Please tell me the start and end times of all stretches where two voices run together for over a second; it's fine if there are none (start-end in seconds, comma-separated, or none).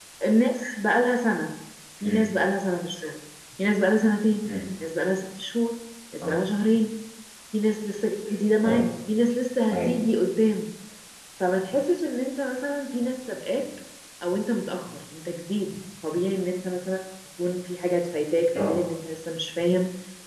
none